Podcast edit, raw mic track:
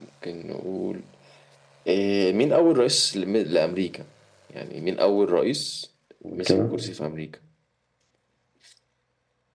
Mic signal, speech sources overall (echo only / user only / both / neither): both